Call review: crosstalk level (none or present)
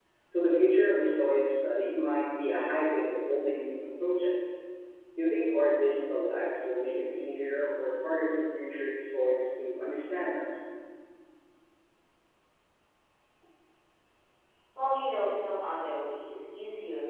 none